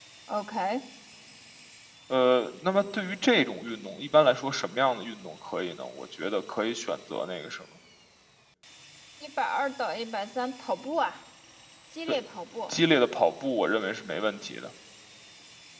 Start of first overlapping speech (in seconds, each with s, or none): none